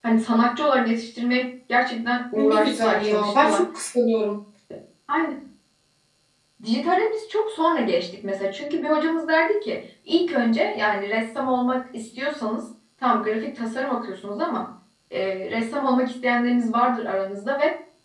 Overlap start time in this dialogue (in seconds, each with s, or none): 2.4 s